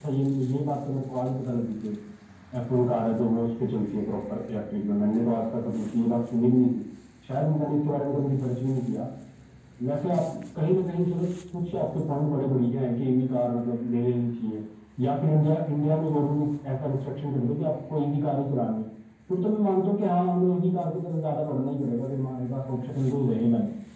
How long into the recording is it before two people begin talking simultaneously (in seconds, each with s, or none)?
none